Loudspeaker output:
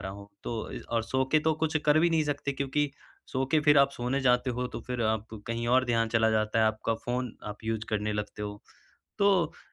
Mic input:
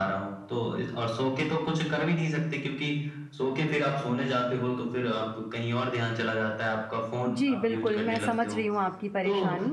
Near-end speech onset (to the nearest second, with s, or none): 7 s